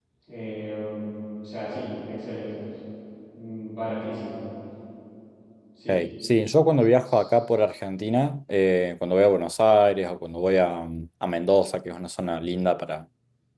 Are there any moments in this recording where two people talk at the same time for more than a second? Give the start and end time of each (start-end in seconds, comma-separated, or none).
none